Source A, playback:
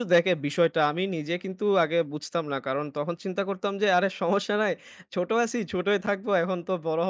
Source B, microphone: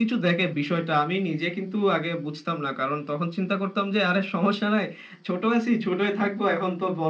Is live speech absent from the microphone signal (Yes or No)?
Yes